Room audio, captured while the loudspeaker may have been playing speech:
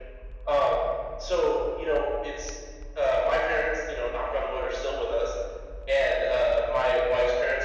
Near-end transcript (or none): none